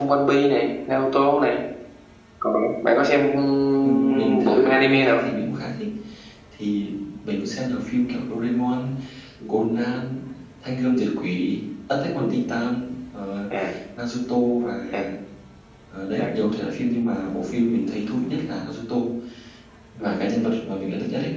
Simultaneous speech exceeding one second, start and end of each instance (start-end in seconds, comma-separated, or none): 3.8-5.2